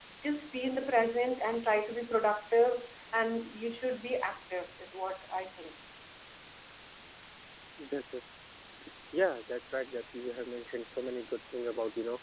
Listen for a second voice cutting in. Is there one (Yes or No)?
No